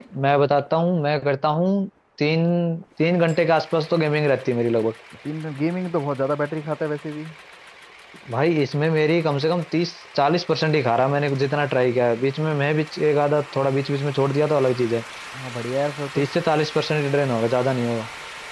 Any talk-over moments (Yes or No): No